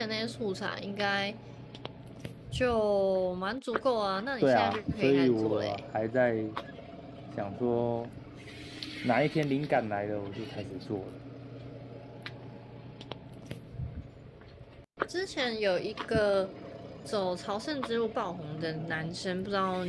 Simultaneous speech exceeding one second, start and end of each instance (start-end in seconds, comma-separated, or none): 4.4-5.8